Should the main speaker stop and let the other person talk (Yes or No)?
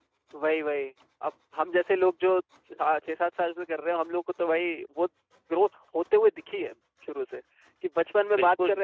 No